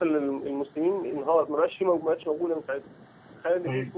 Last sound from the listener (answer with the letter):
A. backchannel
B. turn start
A